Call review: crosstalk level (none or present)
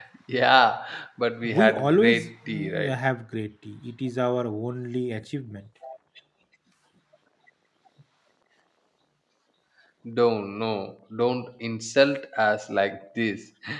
present